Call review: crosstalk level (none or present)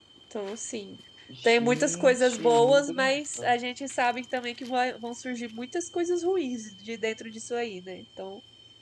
present